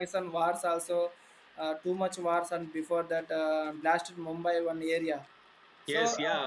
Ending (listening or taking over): taking over